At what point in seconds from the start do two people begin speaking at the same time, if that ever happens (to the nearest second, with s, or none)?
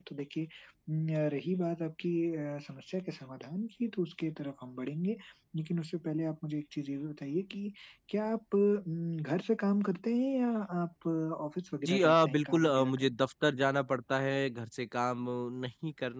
12 s